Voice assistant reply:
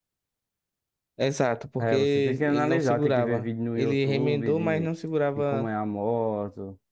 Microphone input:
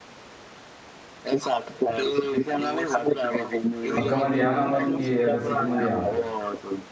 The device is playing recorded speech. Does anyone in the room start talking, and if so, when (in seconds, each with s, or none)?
3.9 s